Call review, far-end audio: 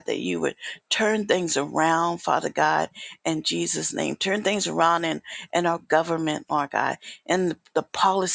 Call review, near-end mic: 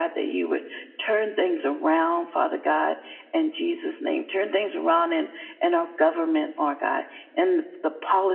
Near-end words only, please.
none

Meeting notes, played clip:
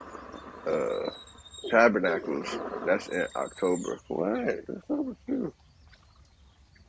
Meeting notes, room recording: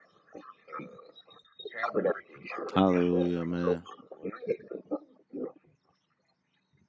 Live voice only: Hallelujah, man.

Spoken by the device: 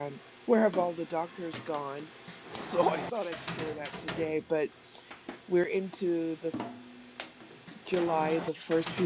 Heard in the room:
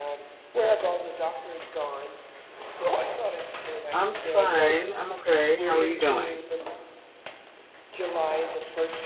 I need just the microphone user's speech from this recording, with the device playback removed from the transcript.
I'm fine. I'm okay. How are you doing?

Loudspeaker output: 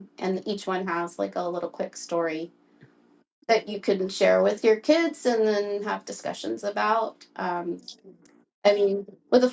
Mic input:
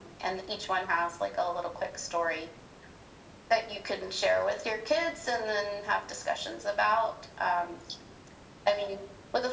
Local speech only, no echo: none

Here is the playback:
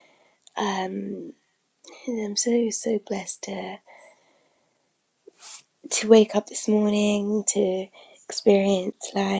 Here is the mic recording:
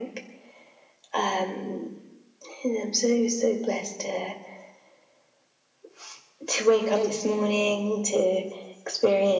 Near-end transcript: Amen.

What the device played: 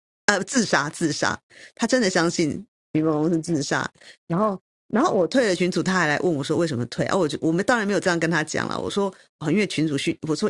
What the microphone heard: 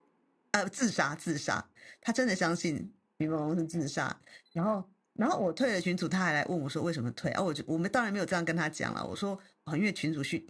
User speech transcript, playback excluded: none

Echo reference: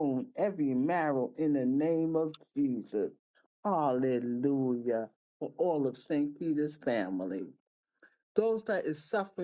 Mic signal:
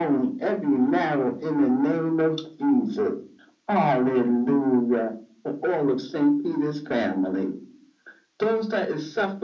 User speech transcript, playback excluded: none

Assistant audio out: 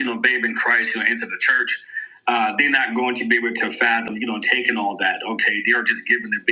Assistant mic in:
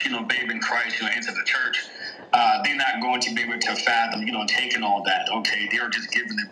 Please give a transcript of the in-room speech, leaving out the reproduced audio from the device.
none

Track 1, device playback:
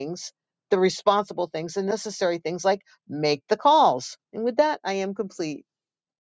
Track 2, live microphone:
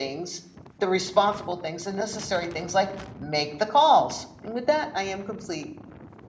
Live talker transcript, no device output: none

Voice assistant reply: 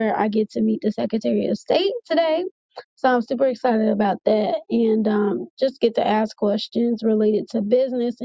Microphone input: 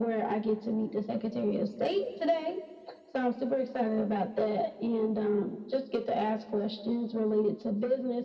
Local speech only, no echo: none

